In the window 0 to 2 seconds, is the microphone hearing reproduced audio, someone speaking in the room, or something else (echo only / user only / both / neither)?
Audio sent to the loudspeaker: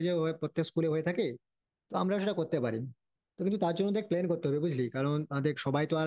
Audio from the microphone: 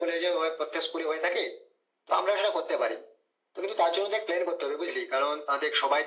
echo only